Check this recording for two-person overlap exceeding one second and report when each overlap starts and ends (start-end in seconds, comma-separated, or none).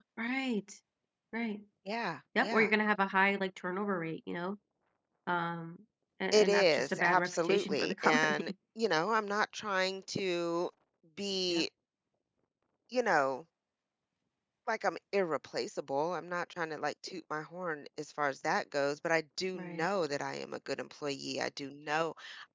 6.3-8.5